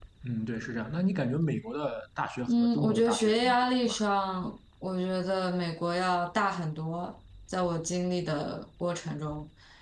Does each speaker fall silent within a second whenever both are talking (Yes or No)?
No